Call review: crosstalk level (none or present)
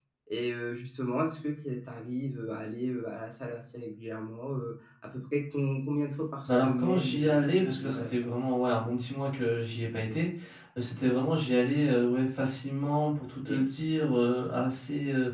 present